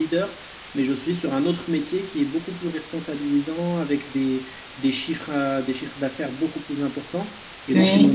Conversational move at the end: listening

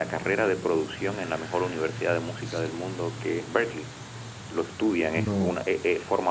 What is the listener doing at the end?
listening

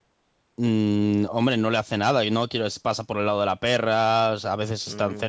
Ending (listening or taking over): taking over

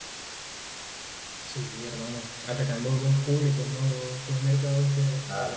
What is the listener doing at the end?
listening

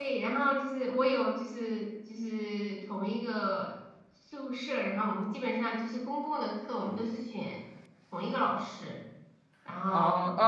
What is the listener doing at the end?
taking over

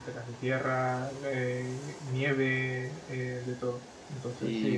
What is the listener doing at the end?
taking over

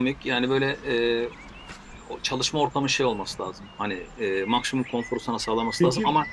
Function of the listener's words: listening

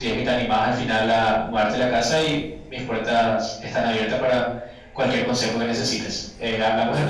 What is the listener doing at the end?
taking over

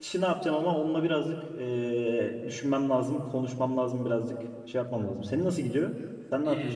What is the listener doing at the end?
taking over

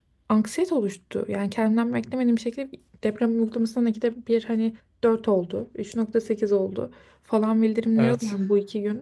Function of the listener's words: listening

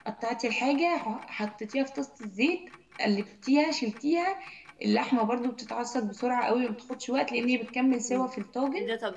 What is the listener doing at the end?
taking over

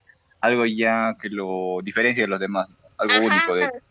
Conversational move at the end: taking over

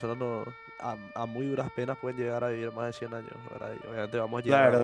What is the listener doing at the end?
taking over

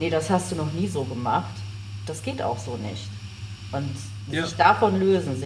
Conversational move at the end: listening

